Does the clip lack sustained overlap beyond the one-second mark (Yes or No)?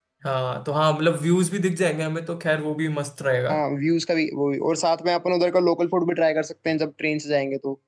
Yes